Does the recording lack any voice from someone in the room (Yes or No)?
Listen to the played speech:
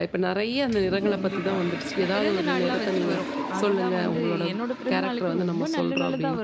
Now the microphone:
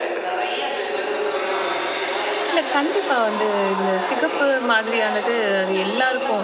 No